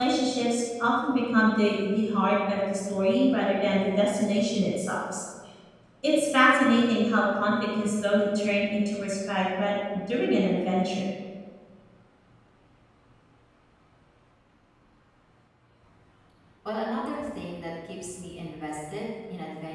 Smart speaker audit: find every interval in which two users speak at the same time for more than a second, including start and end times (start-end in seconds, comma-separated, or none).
none